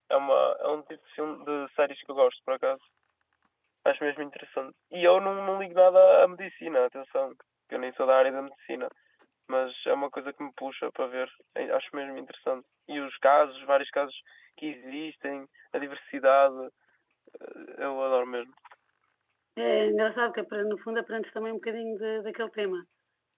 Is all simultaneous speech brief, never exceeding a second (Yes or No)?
Yes